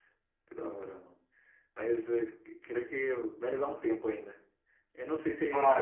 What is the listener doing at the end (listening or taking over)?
taking over